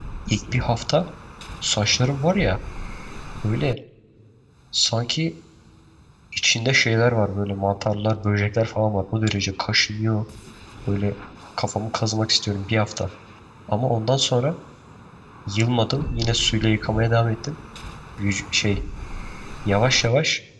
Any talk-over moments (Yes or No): No